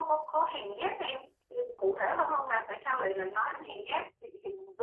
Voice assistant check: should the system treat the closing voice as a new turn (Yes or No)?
Yes